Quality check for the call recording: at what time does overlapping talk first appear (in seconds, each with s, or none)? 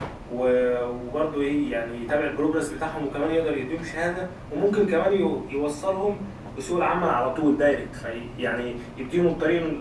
none